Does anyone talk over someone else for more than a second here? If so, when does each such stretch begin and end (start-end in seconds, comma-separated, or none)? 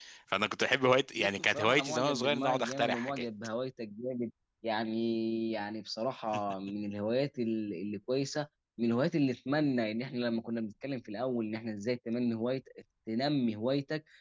1.1-3.2